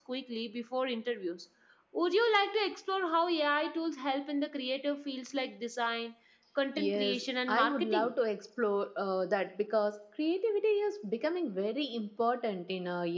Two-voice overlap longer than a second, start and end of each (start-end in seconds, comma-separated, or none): 6.8-8.1